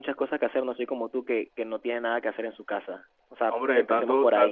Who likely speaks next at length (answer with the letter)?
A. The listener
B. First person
A